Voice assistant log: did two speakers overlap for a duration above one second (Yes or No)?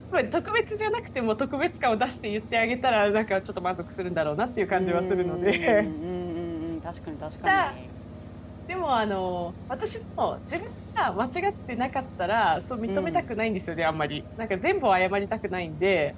Yes